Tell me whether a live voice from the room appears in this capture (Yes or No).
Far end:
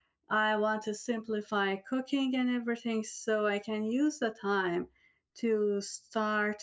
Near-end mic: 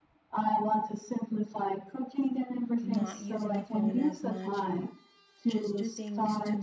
Yes